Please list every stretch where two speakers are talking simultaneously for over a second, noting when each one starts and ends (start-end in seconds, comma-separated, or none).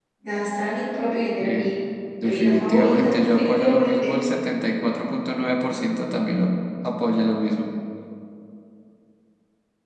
2.2-4.2